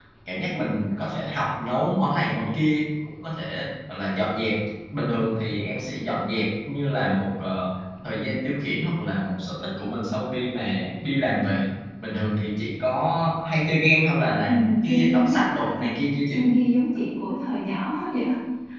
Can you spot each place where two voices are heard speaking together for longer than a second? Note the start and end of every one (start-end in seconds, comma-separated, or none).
14.5-15.9